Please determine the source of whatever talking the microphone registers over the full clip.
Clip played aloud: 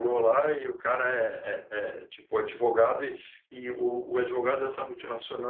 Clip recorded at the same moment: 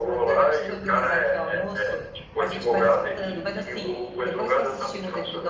both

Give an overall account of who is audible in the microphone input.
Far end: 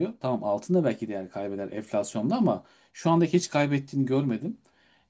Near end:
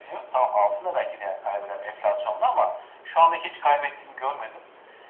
echo only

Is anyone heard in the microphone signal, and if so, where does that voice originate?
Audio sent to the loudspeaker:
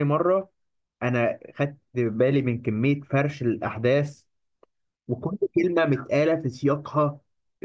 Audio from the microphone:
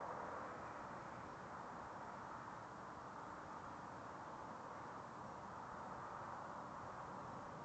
neither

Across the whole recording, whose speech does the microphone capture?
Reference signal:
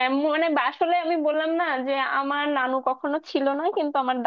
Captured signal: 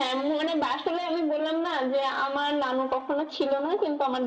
echo only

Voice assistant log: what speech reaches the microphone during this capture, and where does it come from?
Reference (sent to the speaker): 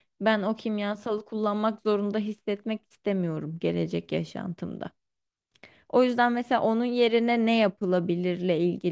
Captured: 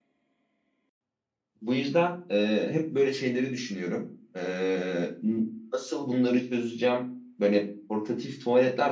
user only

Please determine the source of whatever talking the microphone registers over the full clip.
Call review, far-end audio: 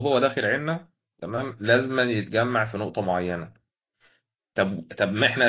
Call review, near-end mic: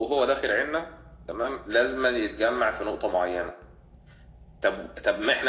echo only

